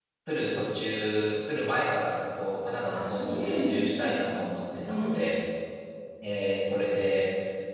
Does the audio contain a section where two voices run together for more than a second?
Yes, from 2.8 s

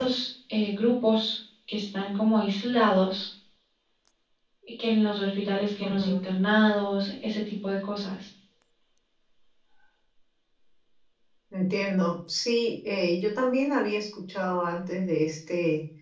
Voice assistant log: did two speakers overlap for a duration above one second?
No

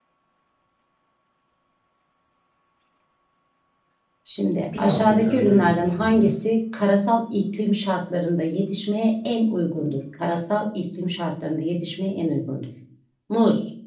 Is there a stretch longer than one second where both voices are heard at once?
Yes, from 4.8 s

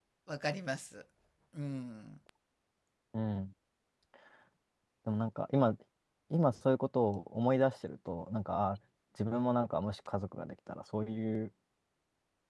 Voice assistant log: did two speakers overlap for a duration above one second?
No

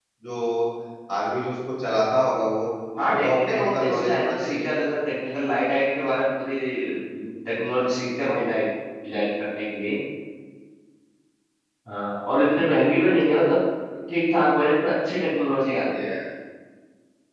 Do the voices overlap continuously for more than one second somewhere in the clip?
Yes, from 3.0 s

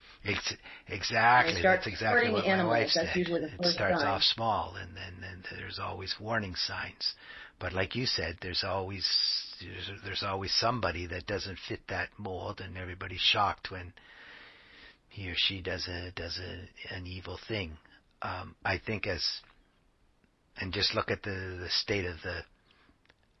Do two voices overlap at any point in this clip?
Yes, from 1.4 s

